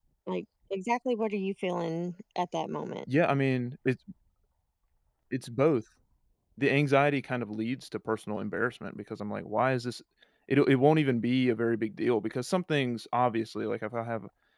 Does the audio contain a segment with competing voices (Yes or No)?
No